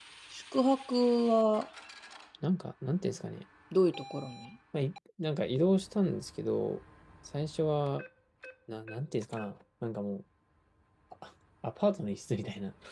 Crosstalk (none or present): none